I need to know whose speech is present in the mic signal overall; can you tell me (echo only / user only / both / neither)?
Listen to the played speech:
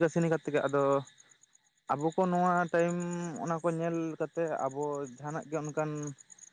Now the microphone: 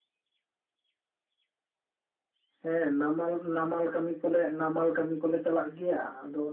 user only